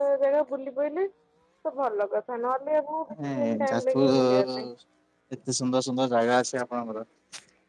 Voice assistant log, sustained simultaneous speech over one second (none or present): present